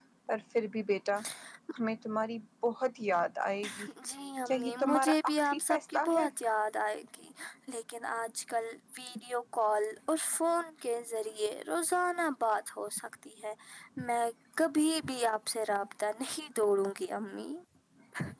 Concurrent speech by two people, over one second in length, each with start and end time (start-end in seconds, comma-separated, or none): 4.5-6.3